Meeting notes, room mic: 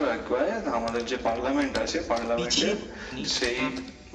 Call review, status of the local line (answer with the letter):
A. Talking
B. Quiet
A